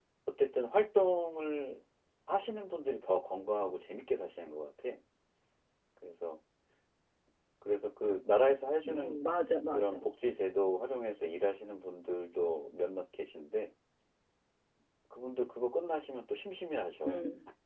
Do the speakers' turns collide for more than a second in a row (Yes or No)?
No